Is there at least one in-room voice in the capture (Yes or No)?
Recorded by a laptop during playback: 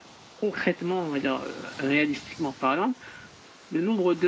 No